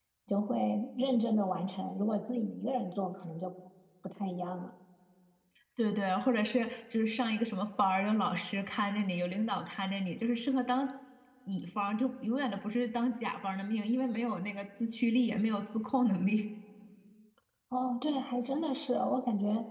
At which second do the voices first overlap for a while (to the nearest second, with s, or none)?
none